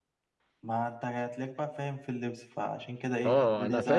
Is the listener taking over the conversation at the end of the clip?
Yes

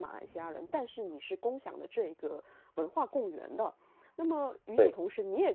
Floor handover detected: No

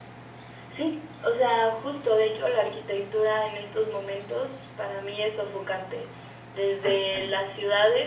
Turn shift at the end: No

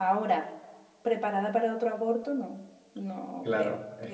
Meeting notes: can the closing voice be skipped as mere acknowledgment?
No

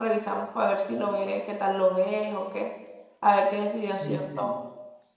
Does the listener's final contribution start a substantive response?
Yes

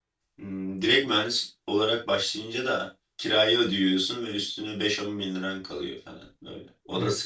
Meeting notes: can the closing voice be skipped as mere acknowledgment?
No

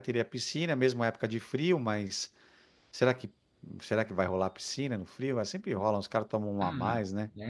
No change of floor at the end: No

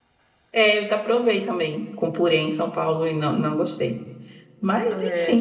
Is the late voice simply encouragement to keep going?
Yes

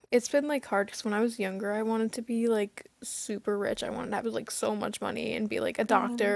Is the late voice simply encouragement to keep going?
Yes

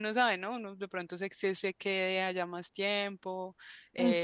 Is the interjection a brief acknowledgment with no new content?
No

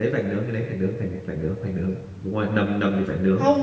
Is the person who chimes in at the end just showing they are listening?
No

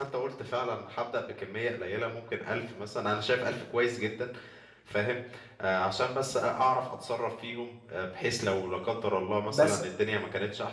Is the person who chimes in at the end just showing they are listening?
Yes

